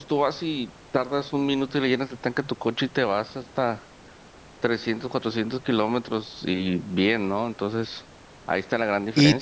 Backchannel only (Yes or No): No